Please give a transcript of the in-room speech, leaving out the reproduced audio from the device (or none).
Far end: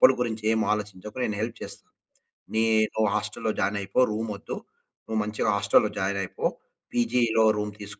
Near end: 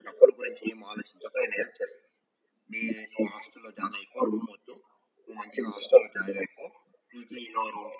none